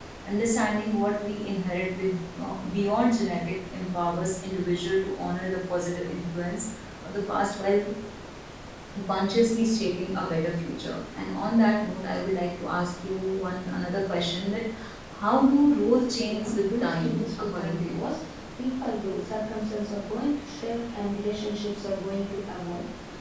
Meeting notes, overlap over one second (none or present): present